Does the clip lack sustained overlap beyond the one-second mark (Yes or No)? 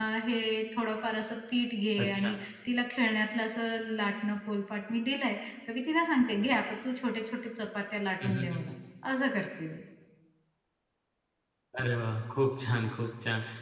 Yes